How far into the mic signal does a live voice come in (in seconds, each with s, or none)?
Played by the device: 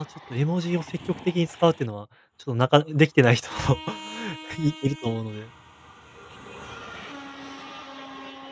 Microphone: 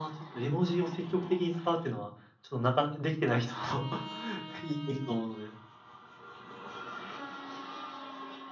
none